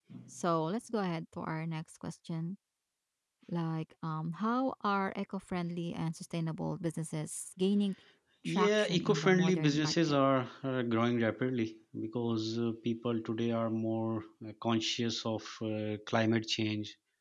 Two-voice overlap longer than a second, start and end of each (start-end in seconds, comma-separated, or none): 8.4-10.2